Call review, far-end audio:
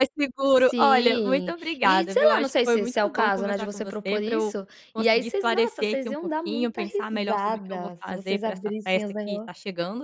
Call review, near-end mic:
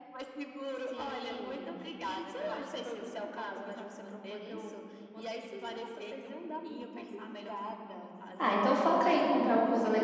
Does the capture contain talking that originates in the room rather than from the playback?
Yes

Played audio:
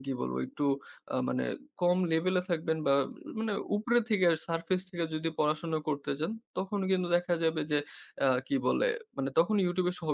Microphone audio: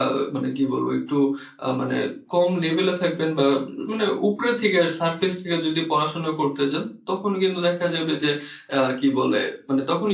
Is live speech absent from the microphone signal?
Yes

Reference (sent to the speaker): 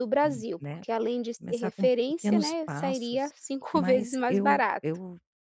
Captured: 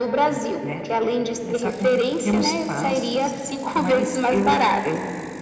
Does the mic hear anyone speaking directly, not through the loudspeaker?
No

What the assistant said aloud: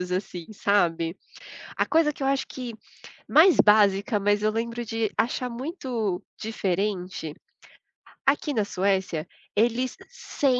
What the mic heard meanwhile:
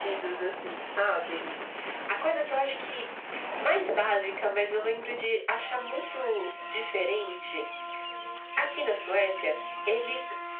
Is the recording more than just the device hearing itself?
No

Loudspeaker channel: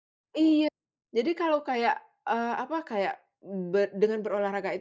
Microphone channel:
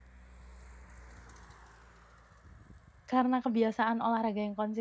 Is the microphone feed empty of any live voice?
No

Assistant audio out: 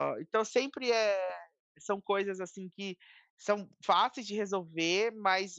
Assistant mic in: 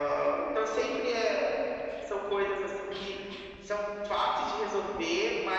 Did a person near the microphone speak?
No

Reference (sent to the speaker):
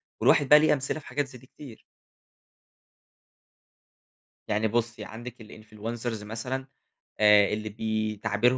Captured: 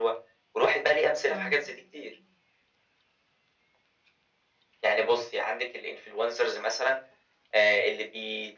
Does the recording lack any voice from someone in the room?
No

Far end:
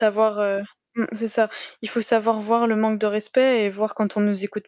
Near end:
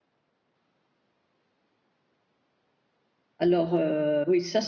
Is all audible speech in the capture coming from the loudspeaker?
No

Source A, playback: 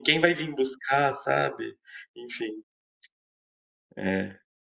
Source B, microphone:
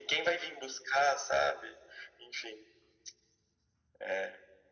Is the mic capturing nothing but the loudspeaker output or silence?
Yes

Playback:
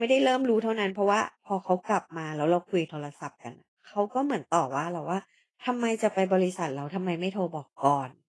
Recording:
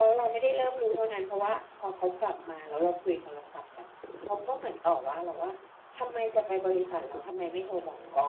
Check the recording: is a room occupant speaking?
No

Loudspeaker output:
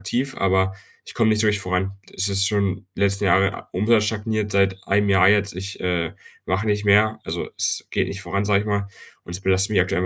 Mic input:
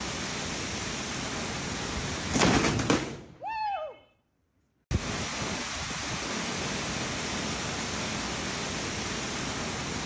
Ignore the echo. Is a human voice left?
No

